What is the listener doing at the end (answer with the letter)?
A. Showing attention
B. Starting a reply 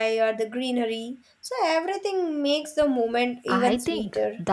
B